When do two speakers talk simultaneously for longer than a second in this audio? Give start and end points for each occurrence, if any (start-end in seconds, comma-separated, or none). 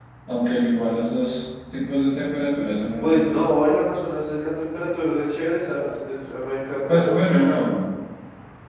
none